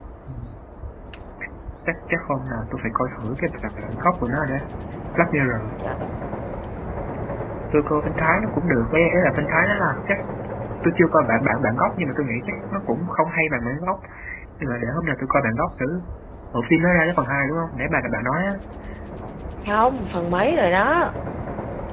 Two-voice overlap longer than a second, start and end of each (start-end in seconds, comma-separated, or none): none